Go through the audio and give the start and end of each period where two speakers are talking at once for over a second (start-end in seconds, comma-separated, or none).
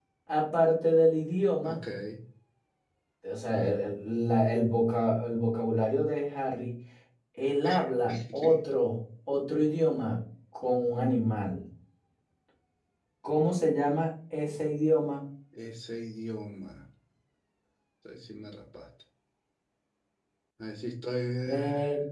none